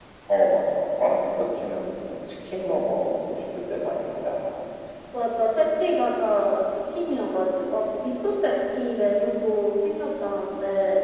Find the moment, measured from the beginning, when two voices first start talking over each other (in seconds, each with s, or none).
none